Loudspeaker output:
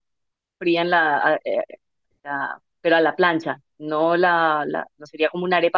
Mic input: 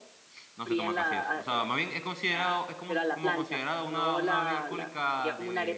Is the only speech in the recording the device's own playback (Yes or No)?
No